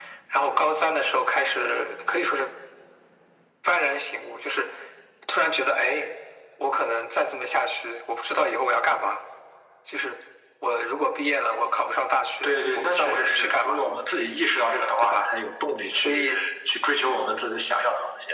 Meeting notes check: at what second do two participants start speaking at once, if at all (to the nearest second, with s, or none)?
12 s